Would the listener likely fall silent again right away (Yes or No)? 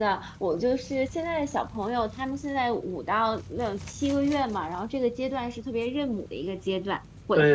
Yes